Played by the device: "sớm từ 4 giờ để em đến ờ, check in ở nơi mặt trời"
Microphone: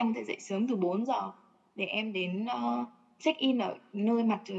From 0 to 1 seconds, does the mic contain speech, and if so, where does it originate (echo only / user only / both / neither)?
echo only